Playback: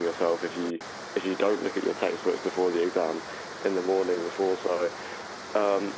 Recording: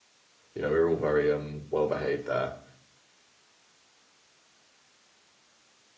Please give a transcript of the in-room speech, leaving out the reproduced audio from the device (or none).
You know, we were all very um well behaved there.